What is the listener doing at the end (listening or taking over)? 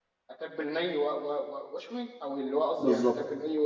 taking over